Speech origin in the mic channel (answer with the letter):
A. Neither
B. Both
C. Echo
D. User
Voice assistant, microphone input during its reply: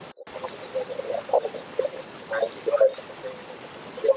C